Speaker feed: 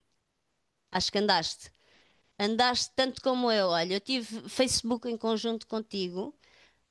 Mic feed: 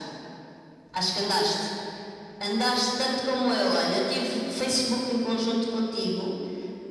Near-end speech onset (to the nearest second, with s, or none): none